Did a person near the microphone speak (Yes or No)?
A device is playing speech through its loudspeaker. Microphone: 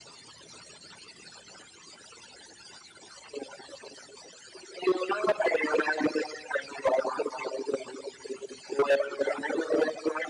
No